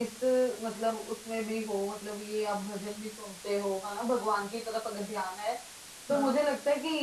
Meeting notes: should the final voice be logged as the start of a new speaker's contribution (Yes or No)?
No